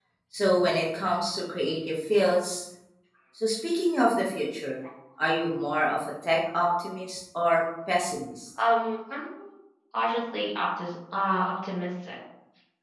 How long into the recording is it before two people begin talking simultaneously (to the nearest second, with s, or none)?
none